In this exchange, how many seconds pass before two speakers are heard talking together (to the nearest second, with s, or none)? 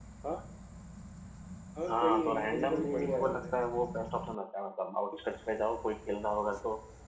2 s